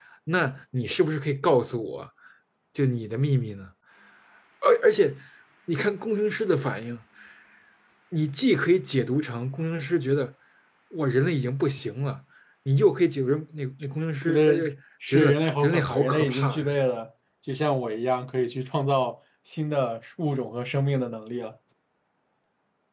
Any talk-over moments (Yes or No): Yes